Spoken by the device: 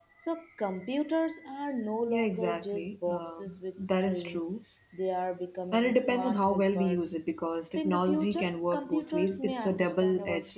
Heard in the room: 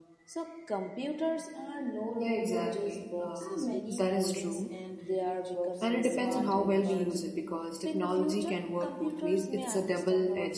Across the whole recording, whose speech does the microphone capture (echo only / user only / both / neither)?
both